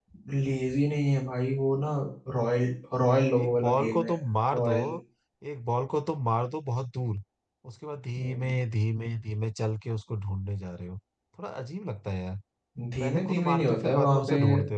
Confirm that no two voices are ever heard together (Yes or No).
No